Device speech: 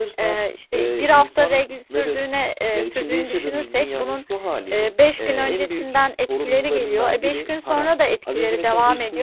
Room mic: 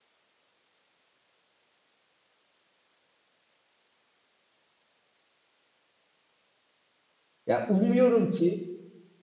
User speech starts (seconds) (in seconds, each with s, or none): 7.5 s